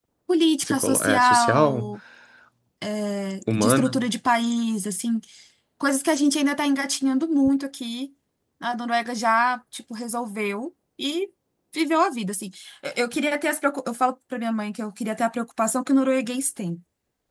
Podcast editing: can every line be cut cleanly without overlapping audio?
No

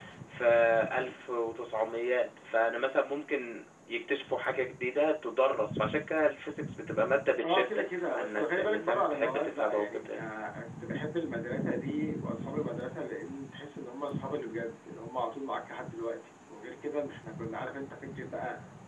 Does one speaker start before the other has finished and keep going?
Yes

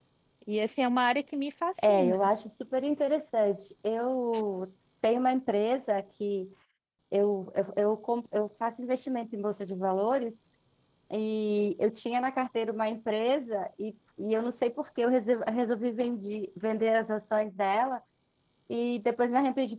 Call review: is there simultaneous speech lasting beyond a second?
No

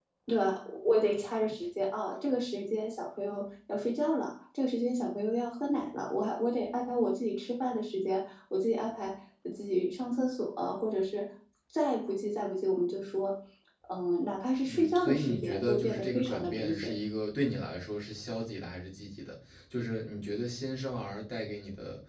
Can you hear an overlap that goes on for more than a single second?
Yes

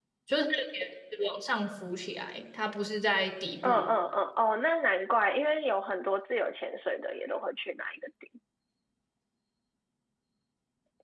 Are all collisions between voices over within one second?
Yes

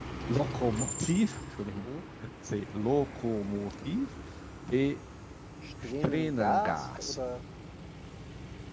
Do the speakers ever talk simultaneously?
Yes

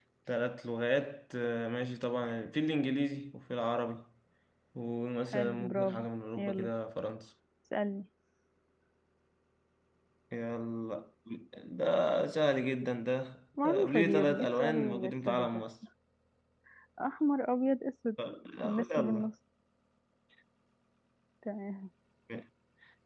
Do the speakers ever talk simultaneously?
Yes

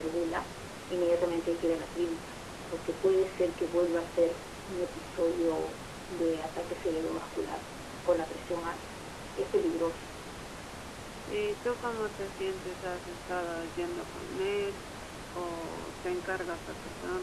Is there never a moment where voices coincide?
Yes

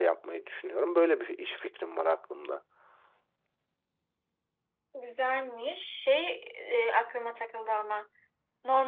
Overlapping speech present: No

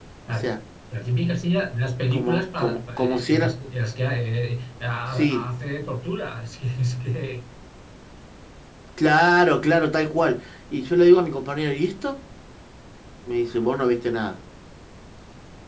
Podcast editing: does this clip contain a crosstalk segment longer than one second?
Yes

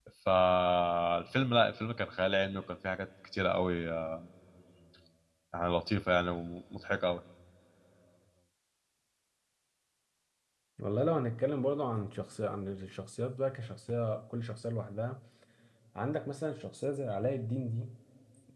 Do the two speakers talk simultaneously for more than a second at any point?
No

